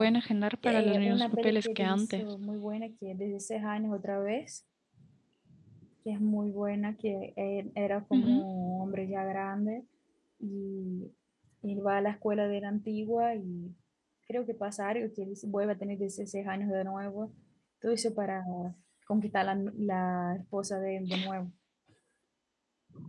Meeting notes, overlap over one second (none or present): present